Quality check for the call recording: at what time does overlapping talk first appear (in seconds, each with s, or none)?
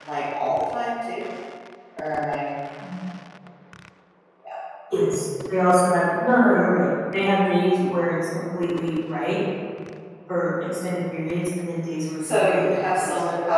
12.2 s